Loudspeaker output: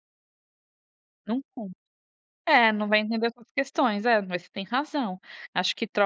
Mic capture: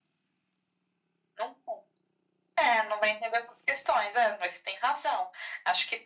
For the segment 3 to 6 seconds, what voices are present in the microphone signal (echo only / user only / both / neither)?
echo only